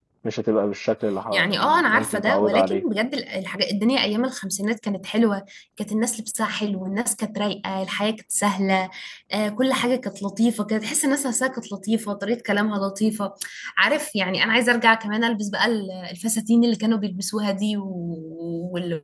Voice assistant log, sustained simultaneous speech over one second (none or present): present